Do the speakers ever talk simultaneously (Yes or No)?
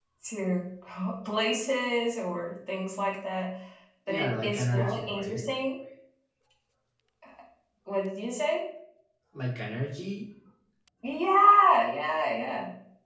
Yes